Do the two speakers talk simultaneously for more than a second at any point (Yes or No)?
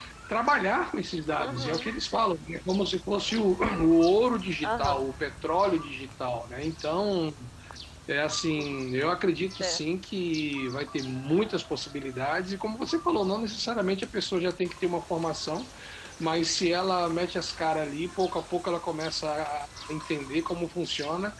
No